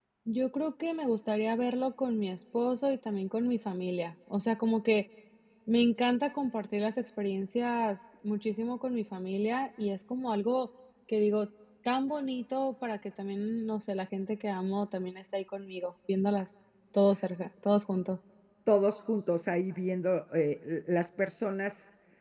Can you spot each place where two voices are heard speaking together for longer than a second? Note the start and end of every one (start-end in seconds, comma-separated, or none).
none